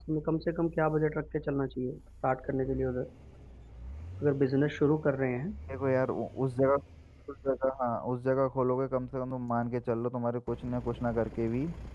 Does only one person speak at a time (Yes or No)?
Yes